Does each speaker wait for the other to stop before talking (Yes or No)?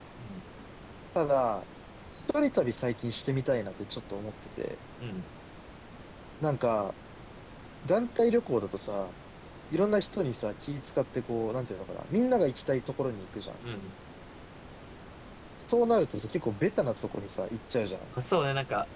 Yes